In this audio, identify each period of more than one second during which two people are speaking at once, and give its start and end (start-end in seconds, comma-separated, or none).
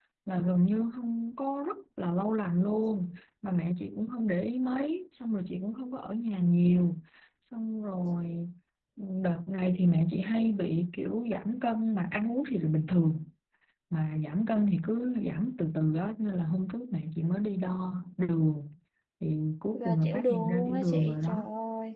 19.7-21.4